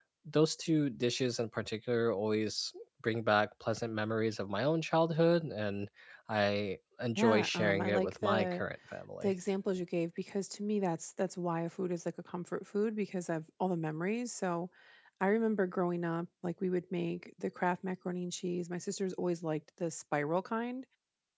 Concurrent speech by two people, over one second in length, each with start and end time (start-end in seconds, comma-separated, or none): 7.2-8.6